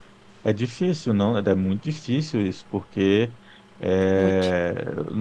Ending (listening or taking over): listening